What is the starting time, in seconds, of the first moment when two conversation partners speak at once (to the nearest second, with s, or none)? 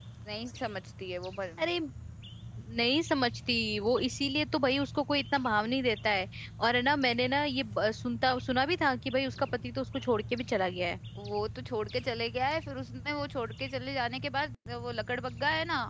none